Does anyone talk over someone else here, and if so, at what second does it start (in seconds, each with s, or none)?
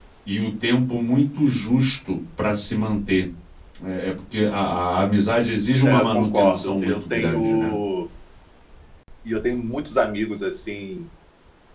5.8 s